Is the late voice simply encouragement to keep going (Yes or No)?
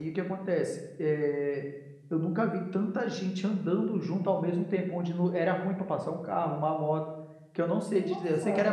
Yes